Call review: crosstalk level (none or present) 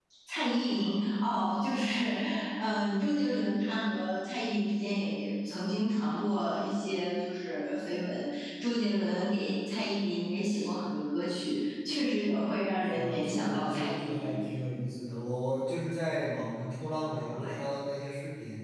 present